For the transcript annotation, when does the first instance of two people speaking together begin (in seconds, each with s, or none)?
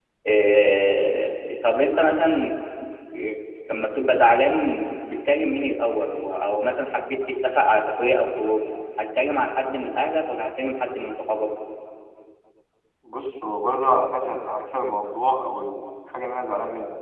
none